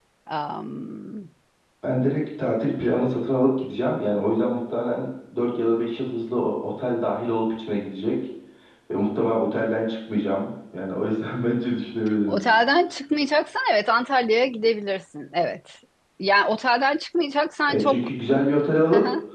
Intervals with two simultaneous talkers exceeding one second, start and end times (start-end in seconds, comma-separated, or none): none